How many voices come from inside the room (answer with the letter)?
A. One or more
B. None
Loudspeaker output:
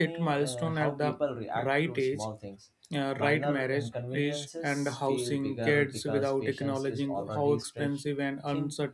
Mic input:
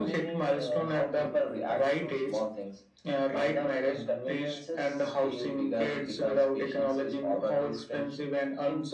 B